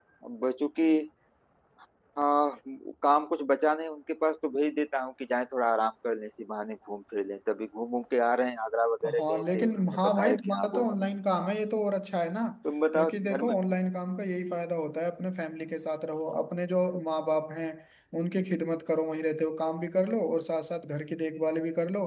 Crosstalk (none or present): present